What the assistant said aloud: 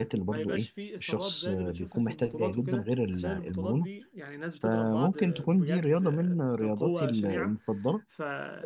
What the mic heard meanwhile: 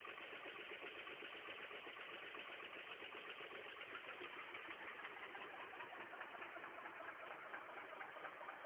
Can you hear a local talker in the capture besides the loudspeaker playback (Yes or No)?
No